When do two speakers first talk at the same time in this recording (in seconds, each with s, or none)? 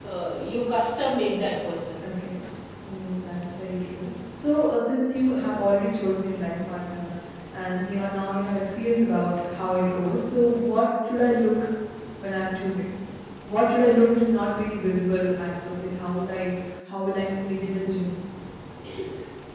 none